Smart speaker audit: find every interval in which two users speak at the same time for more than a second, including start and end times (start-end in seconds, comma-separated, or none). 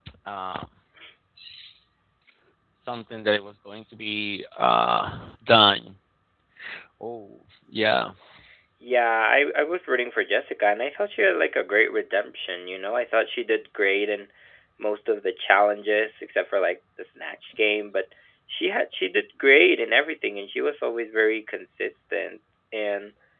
none